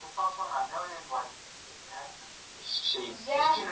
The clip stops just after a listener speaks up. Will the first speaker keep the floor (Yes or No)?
No